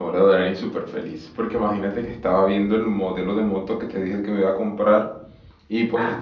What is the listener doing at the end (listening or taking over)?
listening